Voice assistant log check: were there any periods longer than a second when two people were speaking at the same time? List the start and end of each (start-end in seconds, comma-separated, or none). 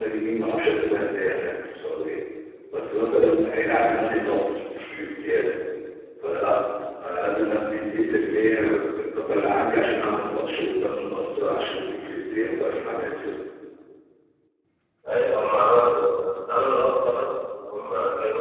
none